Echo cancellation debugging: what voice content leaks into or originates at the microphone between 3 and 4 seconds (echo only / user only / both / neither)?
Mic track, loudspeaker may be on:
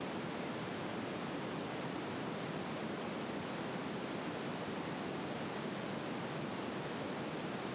neither